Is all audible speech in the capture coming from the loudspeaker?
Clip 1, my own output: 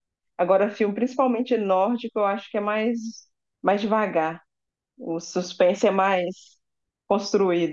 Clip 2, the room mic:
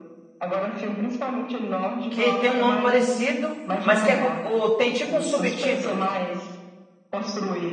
No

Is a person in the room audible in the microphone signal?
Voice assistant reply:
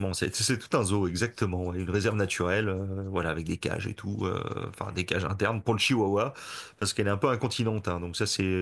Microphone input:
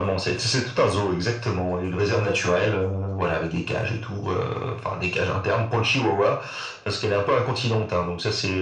No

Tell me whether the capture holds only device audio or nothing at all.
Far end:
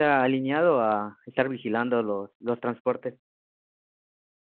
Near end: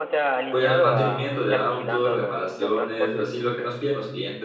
No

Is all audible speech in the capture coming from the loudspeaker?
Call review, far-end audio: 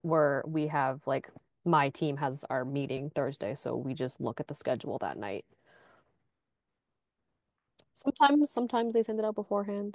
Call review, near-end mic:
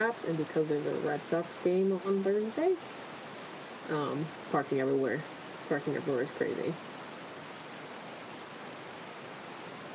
No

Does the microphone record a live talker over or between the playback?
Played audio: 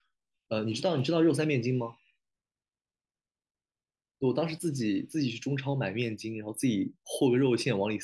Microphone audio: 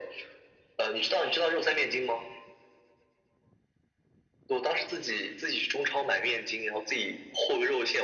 No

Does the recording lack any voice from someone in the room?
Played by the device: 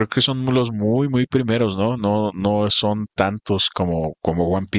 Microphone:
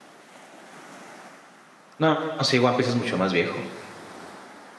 No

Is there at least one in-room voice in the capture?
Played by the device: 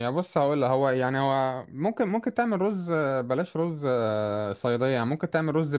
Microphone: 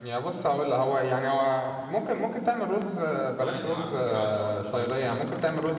Yes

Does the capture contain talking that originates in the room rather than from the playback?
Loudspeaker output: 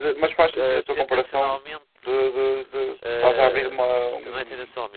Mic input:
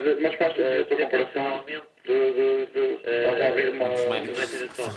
Yes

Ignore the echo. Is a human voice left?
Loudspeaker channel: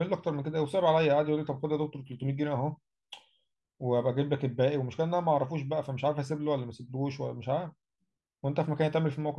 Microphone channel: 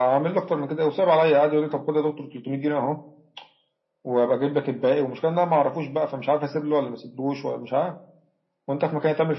No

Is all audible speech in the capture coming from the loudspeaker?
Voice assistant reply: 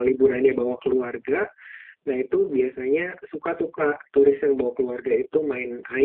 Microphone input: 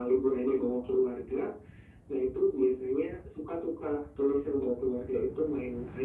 Yes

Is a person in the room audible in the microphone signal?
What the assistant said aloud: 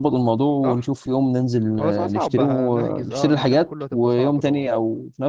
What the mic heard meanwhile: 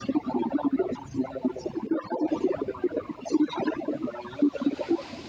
No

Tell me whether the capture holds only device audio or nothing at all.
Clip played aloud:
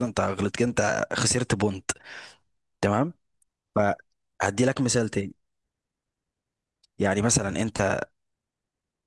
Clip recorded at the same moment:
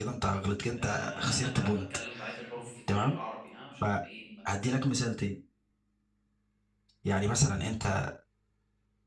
No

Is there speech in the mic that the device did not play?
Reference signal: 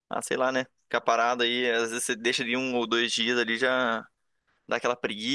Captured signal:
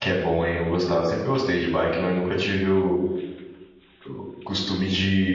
Yes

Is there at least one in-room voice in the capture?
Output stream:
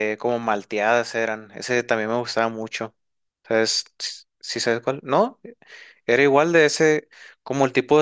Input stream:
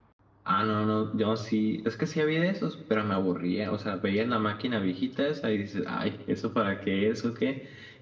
Yes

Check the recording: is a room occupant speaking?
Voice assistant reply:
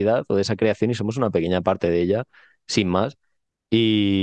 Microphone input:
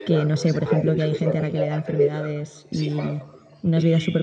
Yes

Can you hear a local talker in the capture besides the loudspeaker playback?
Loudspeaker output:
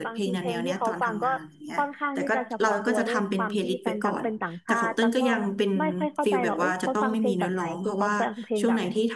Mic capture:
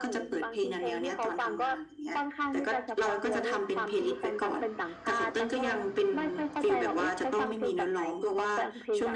No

